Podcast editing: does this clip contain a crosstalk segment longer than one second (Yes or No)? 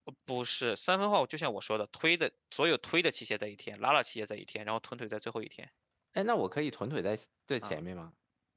No